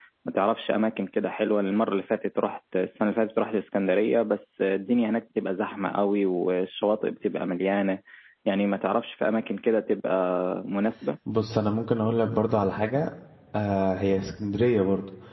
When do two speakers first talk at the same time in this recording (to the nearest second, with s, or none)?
none